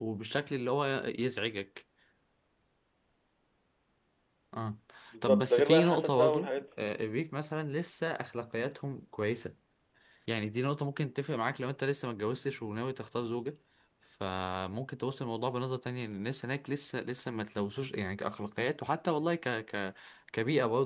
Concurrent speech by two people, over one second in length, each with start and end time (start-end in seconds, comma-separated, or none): 5.2-6.5